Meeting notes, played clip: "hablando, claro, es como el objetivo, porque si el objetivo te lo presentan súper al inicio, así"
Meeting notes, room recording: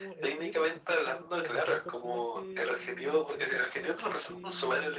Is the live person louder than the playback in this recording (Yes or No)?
No